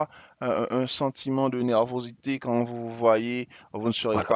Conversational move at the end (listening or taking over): listening